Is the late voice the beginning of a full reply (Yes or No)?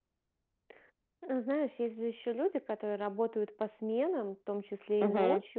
No